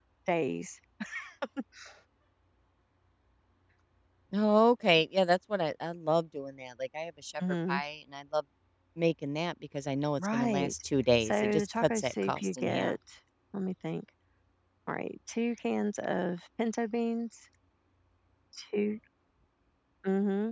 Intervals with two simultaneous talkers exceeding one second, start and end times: 11.2-12.9

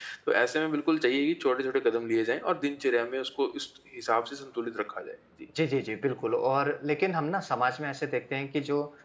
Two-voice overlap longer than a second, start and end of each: none

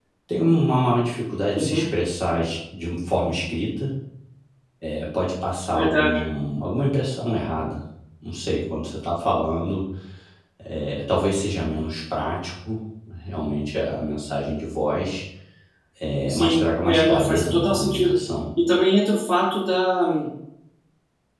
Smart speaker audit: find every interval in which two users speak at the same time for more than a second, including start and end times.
16.3-18.1

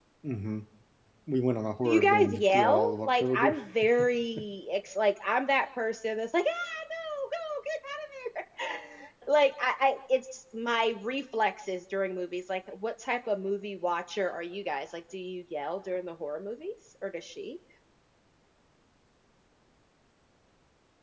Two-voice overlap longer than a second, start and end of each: 1.8-3.5

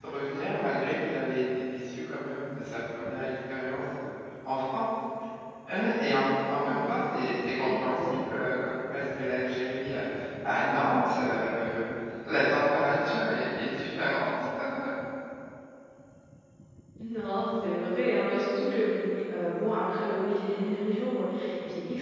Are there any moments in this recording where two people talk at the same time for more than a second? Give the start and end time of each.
none

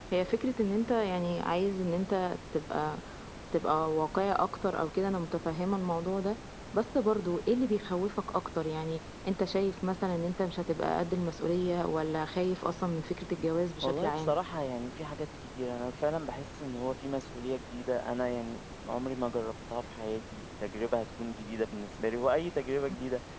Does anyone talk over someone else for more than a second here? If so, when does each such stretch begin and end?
none

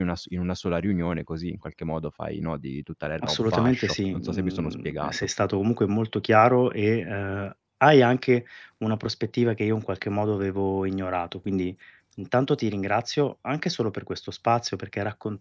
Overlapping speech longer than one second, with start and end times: 3.2-5.1

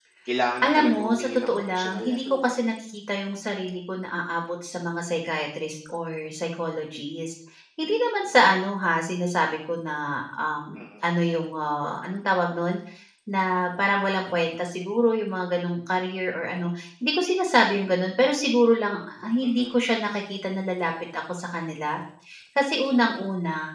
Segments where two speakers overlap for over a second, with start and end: 0.6-2.6

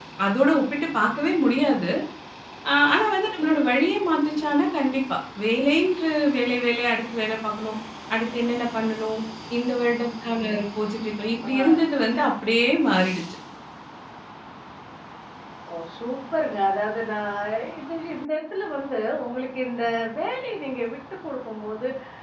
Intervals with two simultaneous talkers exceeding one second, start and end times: none

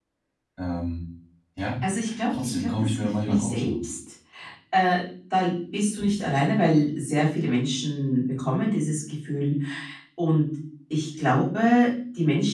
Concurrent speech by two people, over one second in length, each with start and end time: 2.4-3.7

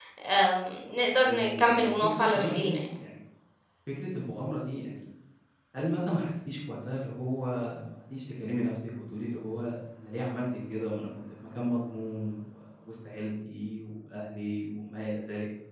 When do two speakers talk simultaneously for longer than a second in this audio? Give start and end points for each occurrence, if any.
1.2-3.0

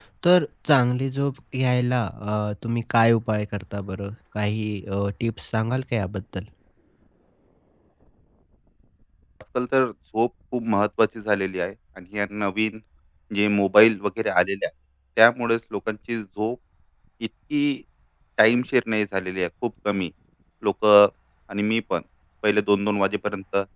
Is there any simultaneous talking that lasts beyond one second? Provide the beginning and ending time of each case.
none

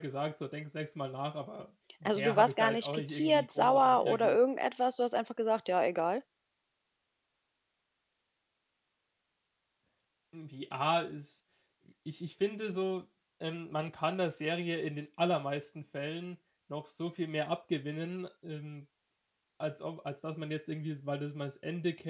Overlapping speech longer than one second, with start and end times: 2.0-4.4

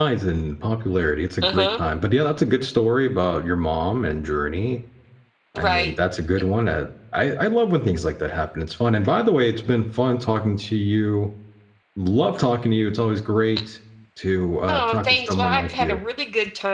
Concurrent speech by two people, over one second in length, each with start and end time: 14.7-16.0

